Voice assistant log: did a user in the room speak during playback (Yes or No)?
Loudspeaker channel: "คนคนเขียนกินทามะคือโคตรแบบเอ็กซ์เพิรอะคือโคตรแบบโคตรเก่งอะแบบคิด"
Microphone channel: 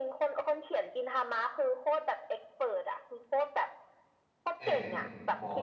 Yes